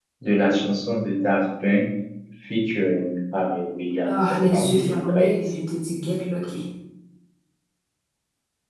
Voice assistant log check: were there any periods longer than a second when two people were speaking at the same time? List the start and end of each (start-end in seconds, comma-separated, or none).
4.0-5.4